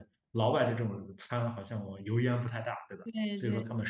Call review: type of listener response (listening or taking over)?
listening